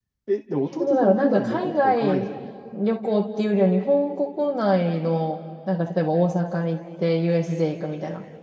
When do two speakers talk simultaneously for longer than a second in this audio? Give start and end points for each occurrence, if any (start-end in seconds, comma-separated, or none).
0.7-2.2